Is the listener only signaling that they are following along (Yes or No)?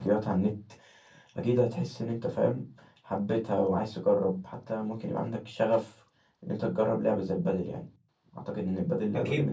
No